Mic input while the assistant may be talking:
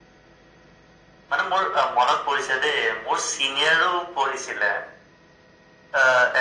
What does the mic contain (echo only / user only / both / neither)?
echo only